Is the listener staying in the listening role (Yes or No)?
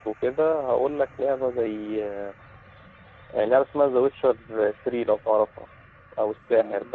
No